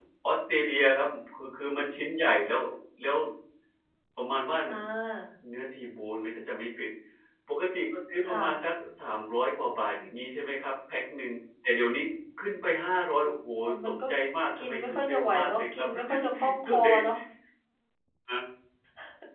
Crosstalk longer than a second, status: present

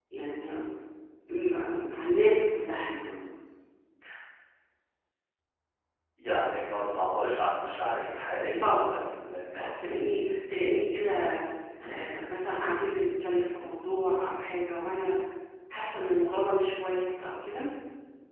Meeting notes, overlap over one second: none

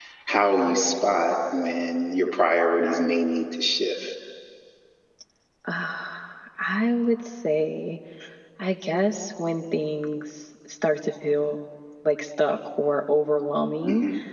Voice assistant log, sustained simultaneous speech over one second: none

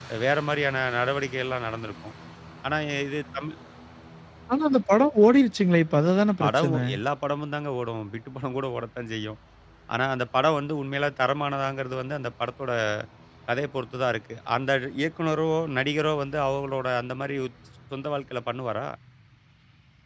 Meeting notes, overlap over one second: none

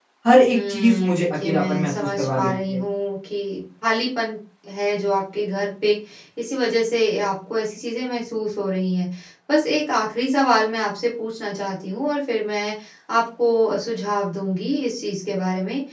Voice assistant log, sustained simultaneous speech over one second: present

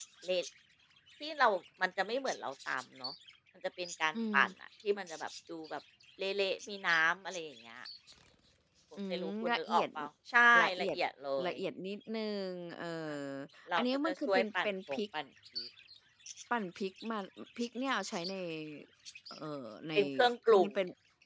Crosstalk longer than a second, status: present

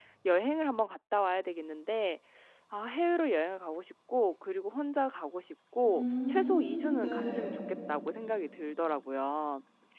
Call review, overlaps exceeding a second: present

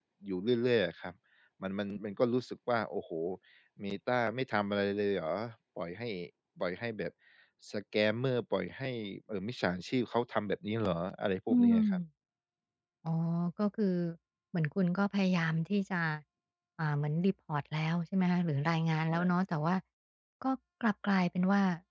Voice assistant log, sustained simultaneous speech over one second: none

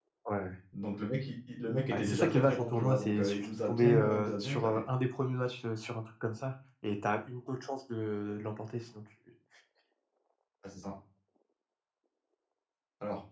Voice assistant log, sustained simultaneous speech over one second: present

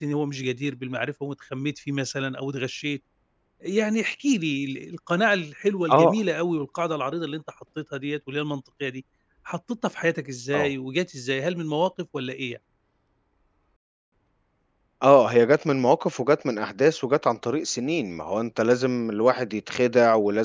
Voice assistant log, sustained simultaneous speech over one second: none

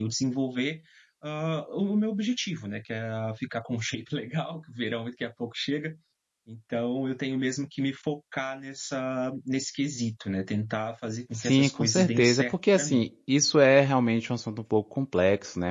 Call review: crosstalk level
present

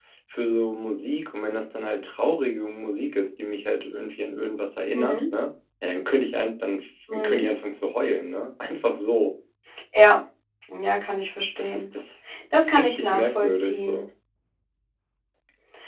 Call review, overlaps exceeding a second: present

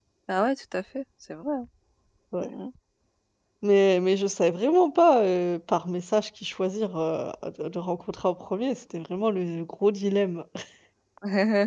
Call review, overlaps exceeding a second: none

